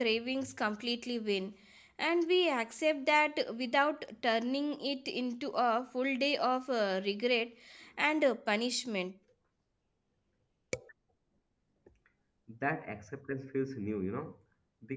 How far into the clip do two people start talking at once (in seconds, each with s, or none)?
none